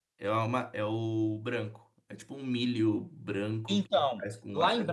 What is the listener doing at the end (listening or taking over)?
taking over